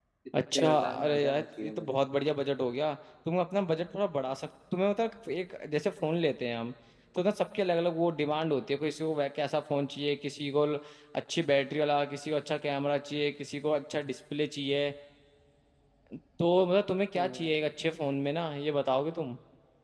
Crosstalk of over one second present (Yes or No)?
Yes